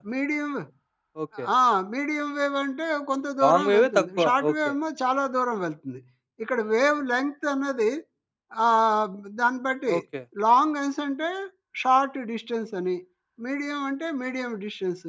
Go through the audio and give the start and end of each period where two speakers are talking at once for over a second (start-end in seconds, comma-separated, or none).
3.4-4.7